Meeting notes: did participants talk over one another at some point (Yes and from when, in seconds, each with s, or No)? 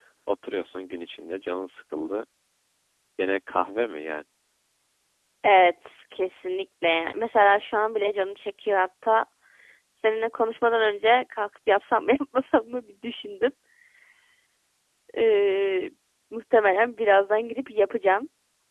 No